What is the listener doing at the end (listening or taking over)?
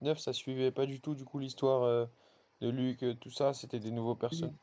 taking over